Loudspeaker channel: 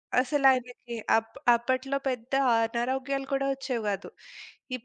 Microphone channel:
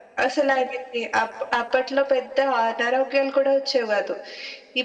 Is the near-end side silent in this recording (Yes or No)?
Yes